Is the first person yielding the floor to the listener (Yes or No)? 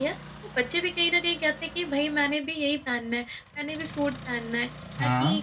No